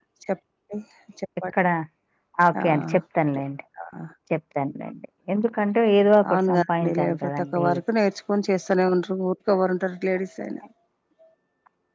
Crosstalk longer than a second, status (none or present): present